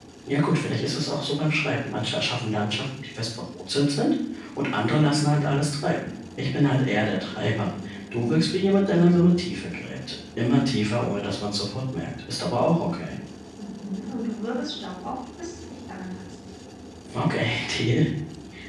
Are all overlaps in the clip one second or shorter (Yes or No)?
Yes